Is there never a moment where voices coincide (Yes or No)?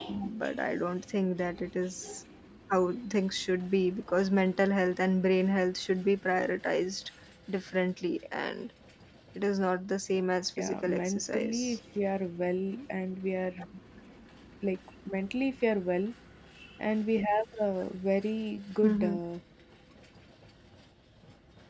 No